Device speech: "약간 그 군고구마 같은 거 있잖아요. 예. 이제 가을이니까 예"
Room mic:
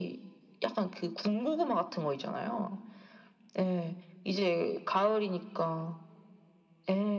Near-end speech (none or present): none